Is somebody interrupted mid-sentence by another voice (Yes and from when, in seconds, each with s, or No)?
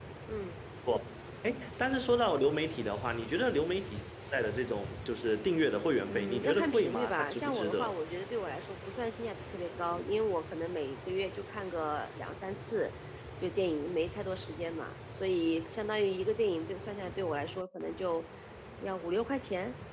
Yes, from 6.1 s